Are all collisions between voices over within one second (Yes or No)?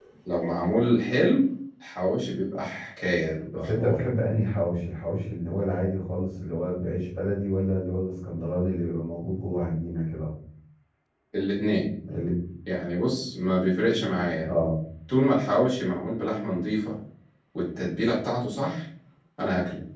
Yes